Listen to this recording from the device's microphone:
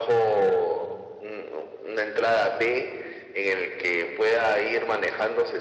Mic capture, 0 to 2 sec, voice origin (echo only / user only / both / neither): echo only